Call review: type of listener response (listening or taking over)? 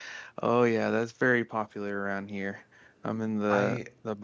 listening